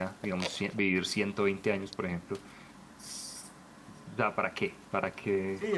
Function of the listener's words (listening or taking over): taking over